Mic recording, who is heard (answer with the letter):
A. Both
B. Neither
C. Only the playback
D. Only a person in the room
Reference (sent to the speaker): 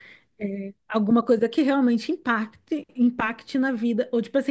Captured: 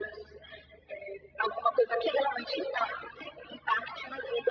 C